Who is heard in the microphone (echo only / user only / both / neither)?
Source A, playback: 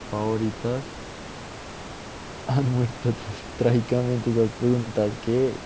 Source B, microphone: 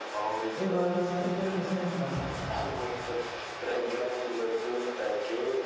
both